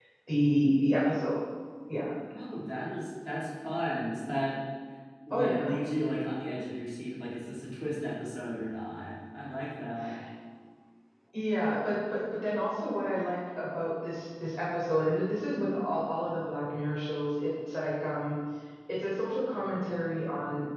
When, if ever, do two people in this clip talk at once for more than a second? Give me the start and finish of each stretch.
none

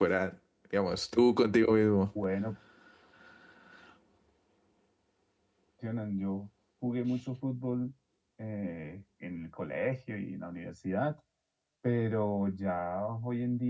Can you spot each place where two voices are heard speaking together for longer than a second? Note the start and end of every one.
none

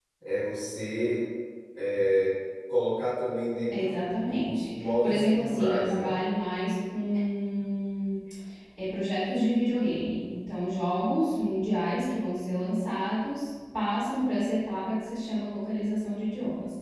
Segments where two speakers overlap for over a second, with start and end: 3.7-6.1

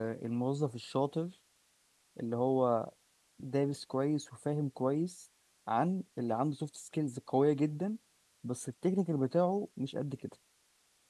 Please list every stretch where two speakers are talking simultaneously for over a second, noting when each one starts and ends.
none

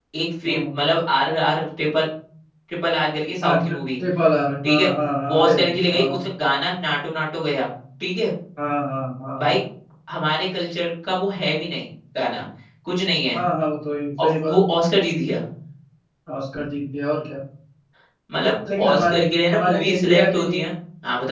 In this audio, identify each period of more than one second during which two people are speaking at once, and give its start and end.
18.8-20.6

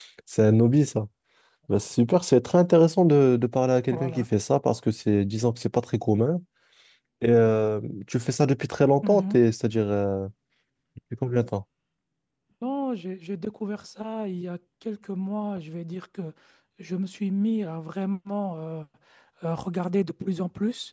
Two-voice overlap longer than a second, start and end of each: none

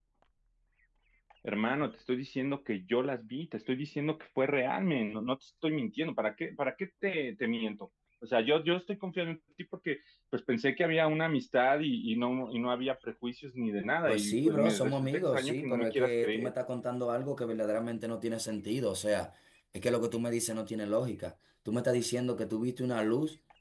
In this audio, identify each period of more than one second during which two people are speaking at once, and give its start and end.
14.1-16.5

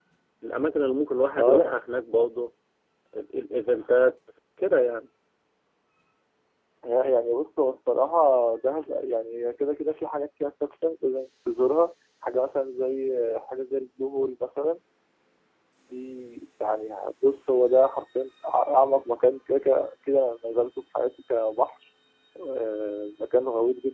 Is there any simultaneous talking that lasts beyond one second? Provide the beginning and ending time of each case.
none

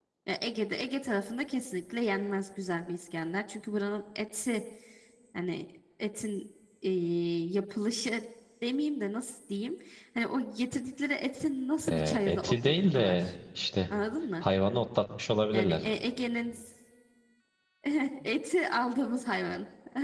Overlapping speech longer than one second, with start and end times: 11.9-13.3

